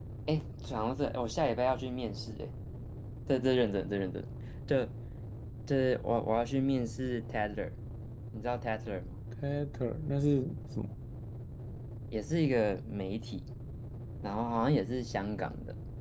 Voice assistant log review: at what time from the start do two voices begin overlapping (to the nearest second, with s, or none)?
none